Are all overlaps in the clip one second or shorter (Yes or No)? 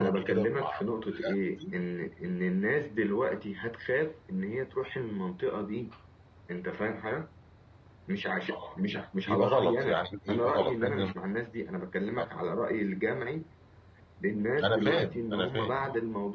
No